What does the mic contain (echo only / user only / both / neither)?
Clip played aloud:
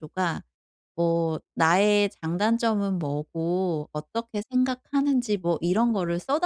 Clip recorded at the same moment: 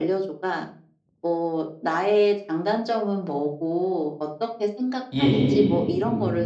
both